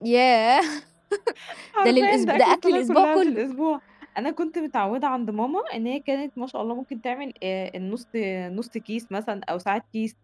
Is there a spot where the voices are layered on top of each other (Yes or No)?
Yes